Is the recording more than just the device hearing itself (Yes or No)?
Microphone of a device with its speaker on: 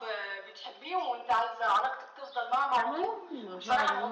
Yes